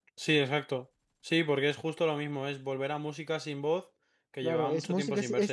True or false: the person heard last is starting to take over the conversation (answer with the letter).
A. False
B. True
B